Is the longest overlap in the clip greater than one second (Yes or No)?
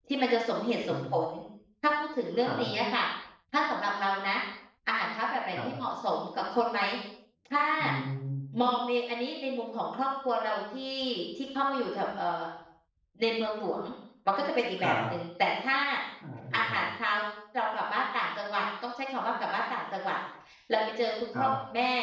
No